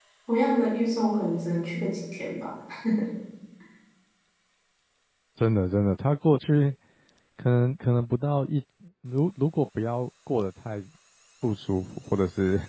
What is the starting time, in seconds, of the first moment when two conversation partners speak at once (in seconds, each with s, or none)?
none